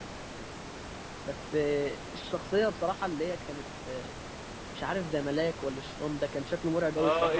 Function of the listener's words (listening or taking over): taking over